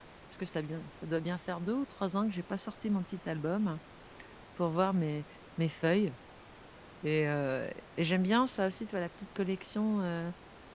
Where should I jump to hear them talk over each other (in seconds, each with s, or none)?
none